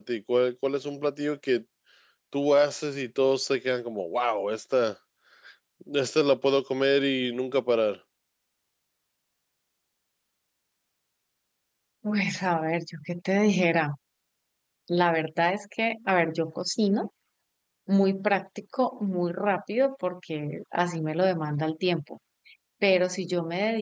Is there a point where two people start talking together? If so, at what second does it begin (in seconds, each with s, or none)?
none